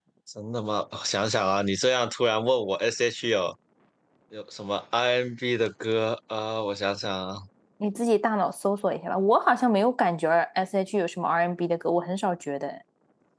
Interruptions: none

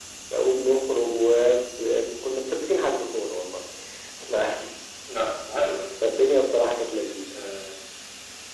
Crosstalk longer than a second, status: none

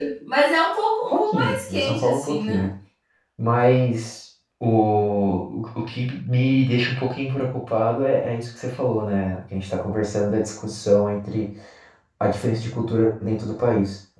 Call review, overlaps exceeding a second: present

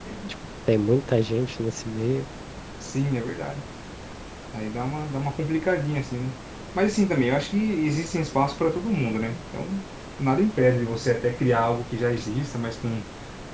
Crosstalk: none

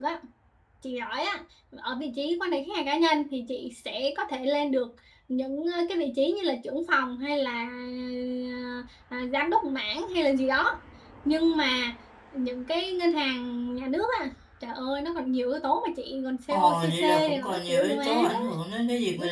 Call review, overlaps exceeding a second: present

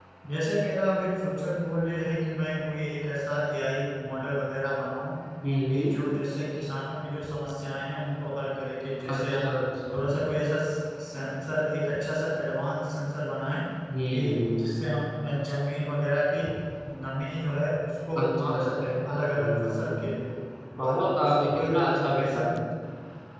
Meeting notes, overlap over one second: present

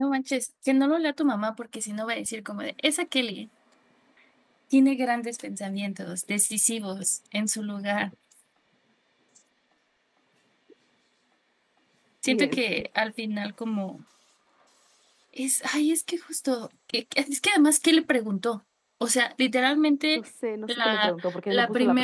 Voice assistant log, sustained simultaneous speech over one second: present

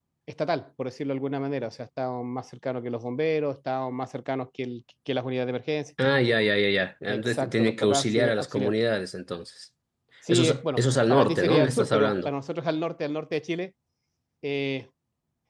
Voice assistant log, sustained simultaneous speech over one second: present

